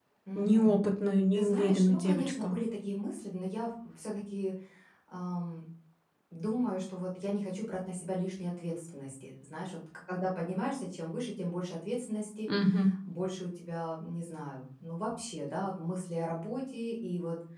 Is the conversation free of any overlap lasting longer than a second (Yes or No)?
No